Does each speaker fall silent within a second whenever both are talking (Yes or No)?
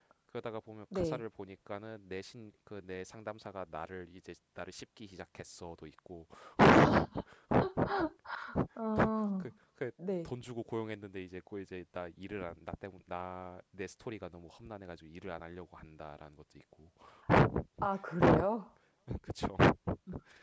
Yes